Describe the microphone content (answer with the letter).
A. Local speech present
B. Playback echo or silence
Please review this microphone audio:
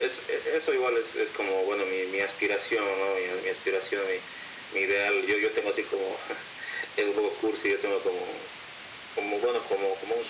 B